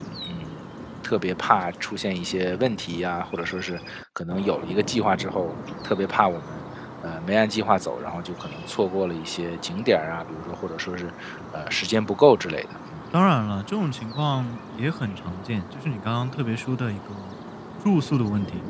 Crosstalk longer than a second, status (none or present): none